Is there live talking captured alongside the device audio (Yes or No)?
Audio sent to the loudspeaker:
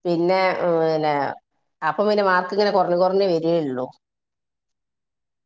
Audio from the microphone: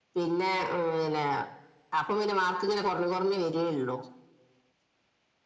No